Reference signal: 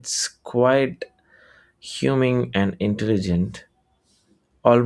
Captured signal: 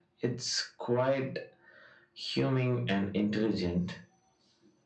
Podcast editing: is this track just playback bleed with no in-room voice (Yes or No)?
Yes